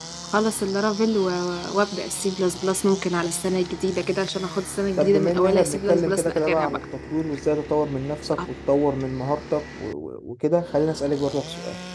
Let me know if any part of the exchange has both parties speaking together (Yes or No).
Yes